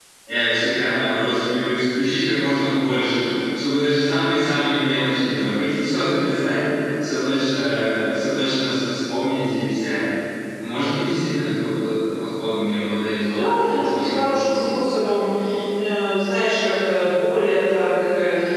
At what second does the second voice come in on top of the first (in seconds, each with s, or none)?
13.2 s